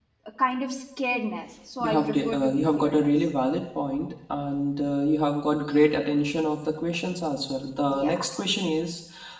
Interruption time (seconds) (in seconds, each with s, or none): 1.8 s